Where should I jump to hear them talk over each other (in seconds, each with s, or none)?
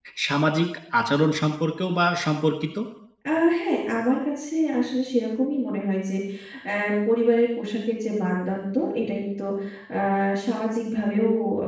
none